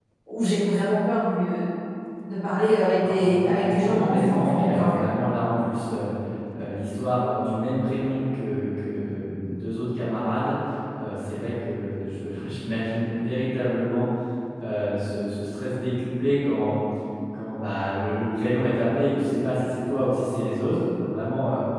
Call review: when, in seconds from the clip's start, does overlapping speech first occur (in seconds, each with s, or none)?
3.0 s